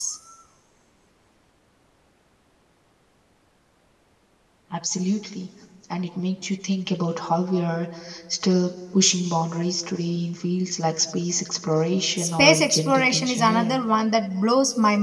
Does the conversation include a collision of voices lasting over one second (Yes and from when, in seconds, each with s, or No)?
Yes, from 12.2 s